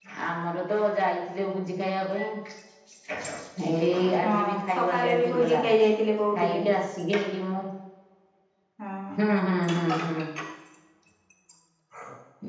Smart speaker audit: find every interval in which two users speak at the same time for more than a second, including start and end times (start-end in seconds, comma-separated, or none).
4.3-5.6